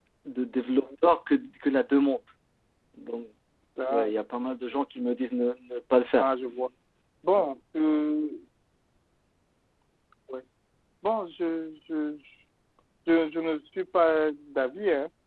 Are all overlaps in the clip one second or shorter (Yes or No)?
Yes